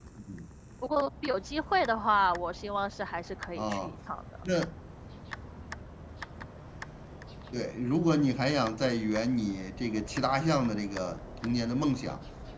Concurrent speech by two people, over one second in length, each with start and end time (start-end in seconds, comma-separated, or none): none